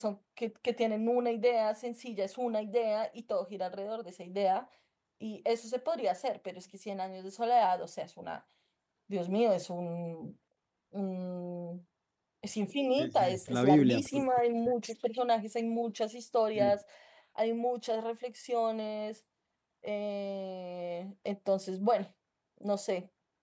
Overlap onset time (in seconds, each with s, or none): 13.0 s